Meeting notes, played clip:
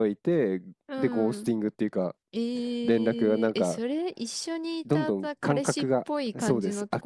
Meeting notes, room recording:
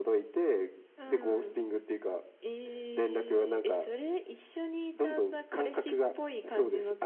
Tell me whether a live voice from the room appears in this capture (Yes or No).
No